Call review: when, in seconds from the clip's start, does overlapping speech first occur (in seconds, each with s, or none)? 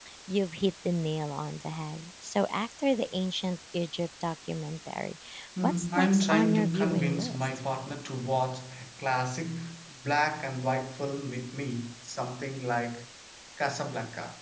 5.6 s